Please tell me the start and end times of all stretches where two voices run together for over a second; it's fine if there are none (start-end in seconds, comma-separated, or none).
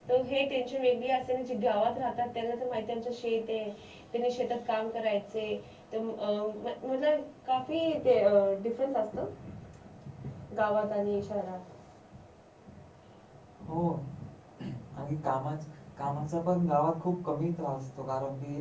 none